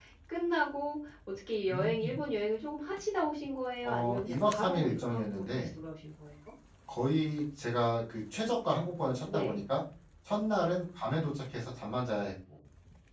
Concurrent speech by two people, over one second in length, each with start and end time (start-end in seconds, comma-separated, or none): 3.8-5.7